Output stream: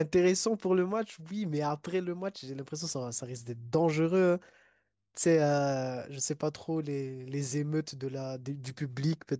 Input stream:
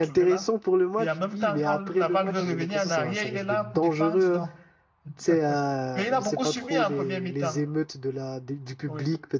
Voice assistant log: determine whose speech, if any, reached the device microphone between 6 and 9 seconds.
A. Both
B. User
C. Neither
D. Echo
A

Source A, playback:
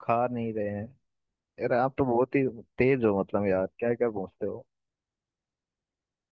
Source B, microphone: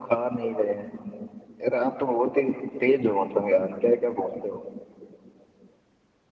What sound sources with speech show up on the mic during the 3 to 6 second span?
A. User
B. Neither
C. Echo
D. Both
C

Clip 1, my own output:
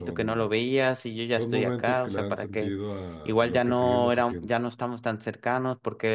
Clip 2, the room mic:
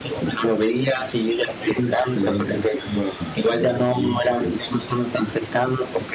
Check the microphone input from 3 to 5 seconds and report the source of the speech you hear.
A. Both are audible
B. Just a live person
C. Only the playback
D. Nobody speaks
C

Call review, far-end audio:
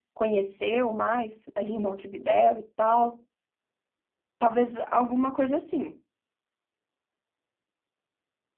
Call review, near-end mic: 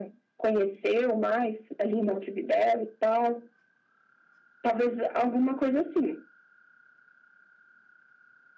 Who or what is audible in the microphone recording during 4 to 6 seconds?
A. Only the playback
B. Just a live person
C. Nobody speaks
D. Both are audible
A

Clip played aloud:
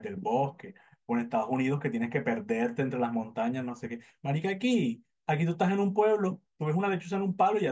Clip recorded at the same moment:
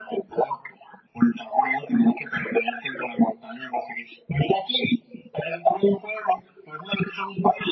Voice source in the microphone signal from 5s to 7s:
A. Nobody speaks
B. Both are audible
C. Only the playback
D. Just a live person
C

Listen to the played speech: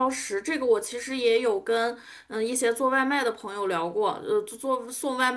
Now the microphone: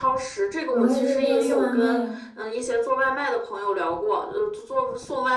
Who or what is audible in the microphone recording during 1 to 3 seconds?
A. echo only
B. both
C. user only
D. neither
B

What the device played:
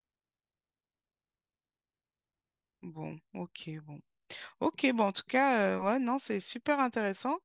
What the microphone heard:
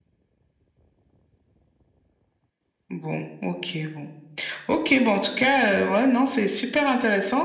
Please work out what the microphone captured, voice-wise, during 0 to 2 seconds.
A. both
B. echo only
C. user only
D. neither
D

